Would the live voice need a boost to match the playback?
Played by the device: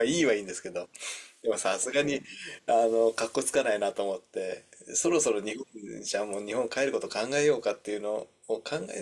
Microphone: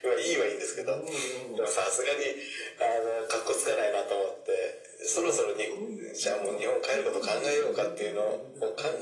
Yes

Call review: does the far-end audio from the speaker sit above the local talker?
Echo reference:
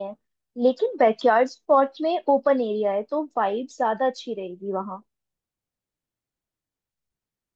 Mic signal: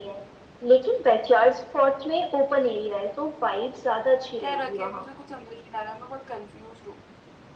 Yes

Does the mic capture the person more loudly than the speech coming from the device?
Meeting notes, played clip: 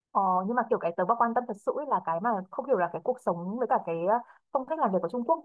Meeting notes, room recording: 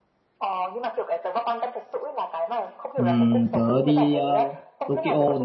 Yes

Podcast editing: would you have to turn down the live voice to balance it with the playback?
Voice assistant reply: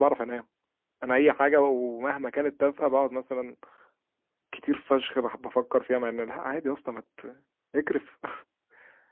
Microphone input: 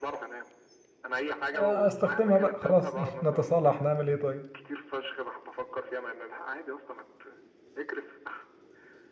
Yes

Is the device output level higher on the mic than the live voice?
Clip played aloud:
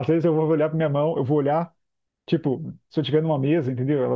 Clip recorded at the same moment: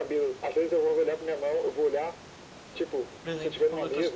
Yes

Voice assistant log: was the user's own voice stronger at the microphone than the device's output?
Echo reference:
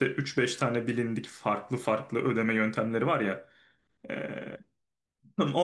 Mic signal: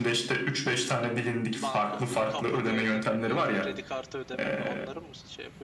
No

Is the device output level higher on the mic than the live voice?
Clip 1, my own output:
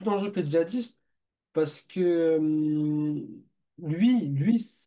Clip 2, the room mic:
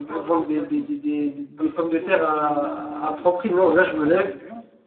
No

